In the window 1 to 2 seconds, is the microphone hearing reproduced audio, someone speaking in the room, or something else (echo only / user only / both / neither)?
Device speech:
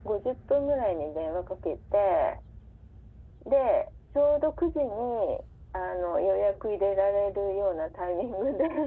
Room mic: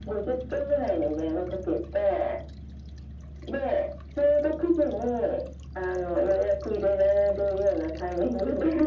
echo only